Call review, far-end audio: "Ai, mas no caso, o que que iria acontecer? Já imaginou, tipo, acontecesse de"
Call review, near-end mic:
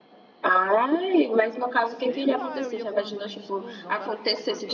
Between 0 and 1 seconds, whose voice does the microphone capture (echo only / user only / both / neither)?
echo only